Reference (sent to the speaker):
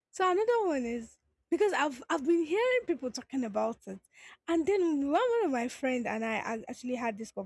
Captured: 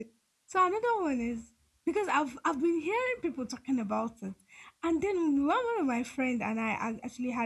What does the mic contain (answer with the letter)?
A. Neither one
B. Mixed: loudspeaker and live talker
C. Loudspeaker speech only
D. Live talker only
C